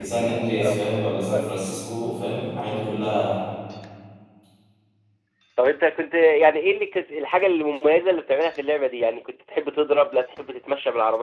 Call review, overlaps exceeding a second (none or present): none